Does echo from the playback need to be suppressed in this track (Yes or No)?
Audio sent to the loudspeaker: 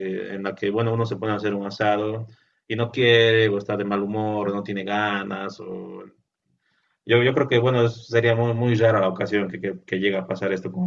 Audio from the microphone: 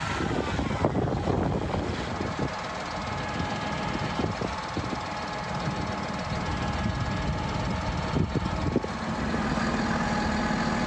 No